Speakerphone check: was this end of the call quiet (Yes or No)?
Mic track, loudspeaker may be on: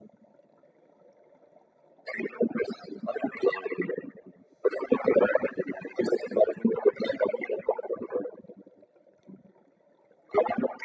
Yes